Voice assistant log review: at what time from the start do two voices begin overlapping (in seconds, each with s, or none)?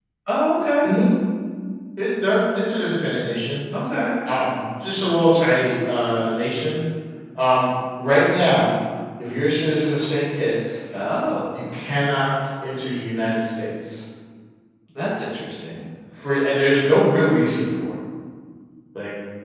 none